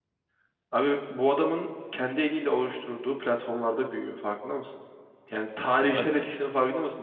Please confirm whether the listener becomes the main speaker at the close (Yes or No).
No